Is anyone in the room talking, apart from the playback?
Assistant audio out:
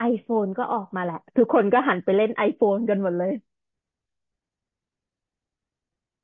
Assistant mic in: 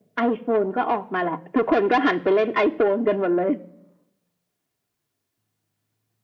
No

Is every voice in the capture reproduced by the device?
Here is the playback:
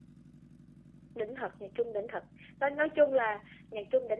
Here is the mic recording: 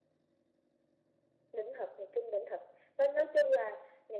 Yes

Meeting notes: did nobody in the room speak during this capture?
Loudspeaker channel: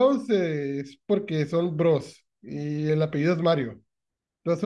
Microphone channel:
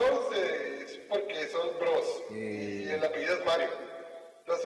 No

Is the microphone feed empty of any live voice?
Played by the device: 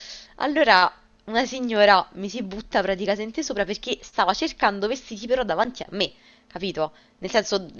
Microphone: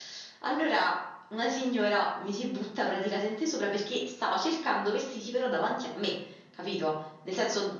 Yes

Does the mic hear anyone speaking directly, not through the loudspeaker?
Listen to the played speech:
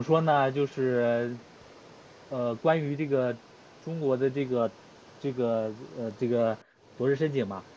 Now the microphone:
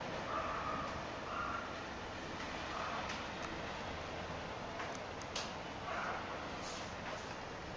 No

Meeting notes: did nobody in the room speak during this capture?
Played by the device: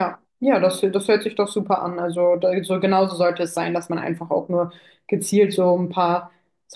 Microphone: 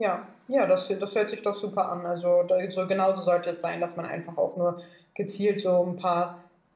Yes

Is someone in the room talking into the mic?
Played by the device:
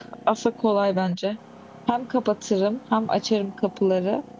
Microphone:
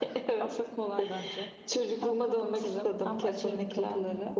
Yes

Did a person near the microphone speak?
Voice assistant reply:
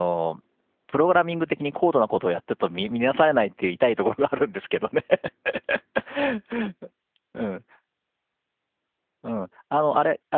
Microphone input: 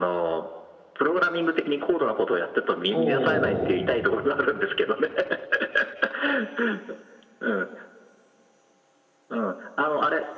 Yes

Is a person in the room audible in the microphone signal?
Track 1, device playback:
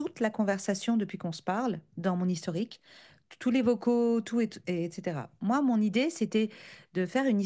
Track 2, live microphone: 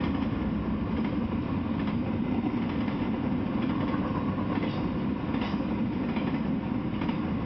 No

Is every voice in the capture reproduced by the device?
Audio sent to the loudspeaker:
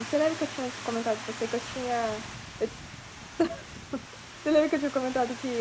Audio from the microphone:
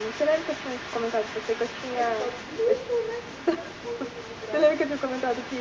No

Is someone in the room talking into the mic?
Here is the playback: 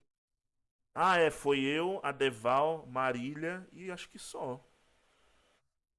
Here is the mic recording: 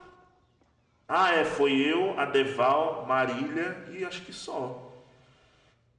No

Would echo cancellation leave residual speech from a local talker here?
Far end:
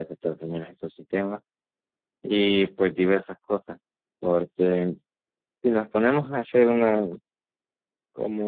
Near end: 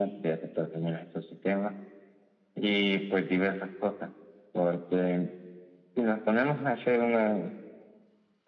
No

